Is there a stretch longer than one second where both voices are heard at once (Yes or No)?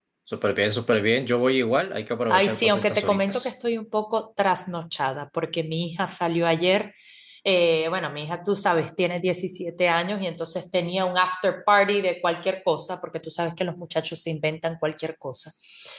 Yes